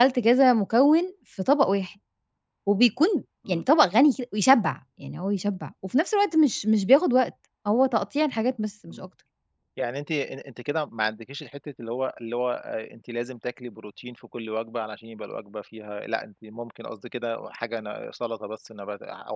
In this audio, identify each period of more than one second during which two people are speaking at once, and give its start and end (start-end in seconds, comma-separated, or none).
none